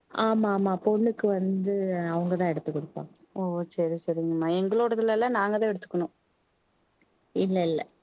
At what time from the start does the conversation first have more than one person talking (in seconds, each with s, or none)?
none